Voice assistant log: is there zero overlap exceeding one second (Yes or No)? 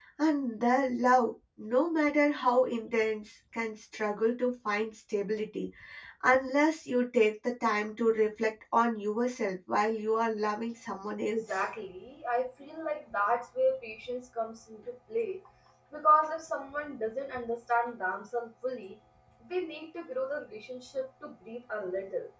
Yes